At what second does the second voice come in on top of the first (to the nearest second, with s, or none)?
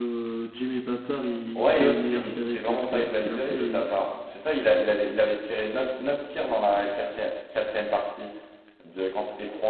2 s